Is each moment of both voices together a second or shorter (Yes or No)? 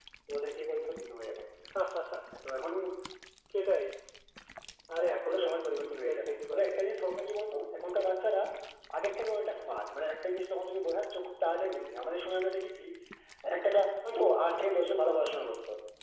No